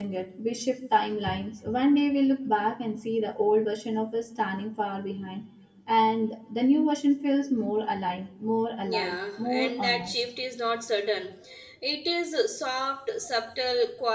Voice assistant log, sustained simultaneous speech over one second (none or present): present